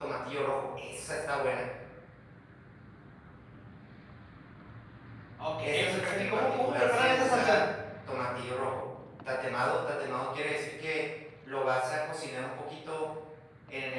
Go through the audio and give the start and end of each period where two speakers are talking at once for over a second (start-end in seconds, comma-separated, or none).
5.6-7.6